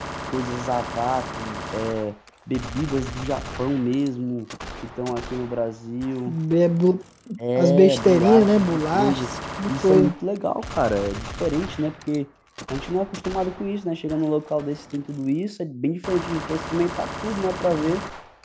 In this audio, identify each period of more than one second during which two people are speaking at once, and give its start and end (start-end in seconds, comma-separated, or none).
7.6-9.2